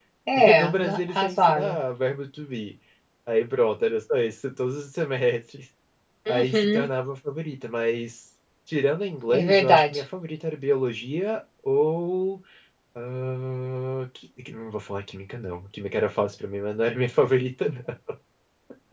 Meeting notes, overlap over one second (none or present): present